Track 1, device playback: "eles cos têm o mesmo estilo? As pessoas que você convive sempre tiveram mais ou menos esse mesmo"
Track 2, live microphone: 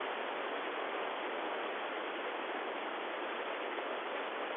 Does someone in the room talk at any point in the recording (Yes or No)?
No